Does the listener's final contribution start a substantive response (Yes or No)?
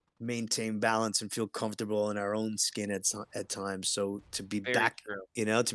No